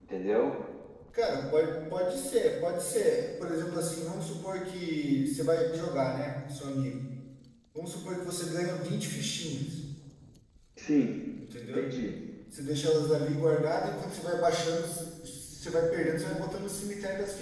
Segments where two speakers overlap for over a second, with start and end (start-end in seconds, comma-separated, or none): none